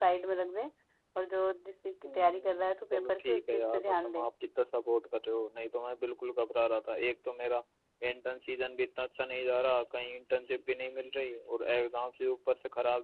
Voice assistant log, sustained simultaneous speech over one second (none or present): present